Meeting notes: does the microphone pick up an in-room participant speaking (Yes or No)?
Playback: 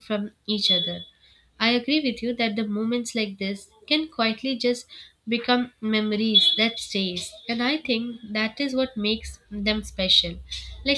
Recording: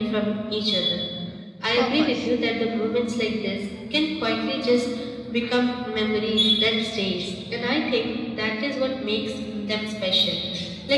Yes